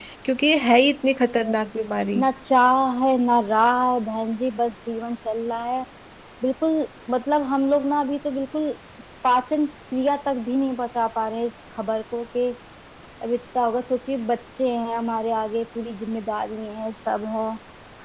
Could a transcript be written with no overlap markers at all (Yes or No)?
Yes